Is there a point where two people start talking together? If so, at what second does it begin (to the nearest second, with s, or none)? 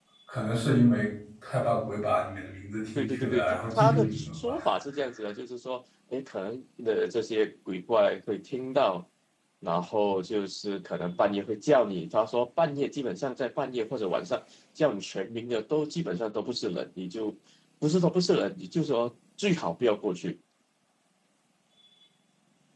3 s